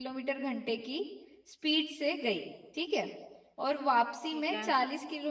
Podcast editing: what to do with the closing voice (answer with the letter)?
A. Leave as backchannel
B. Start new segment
A